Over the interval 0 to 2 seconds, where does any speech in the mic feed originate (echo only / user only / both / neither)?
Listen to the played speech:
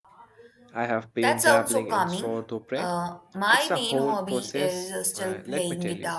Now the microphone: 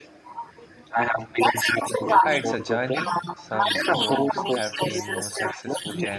echo only